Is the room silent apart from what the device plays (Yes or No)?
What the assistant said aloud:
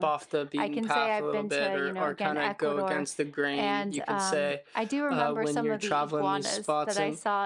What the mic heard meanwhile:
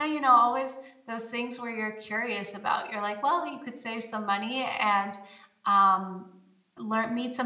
No